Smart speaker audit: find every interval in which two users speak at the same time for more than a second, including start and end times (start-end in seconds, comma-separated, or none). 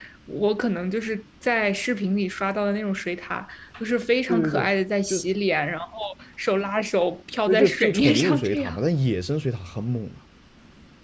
7.5-8.8